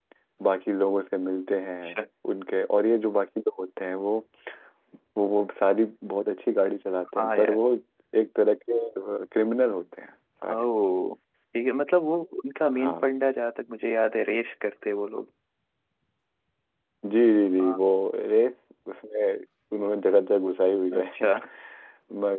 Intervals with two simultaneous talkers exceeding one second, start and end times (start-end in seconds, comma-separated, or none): none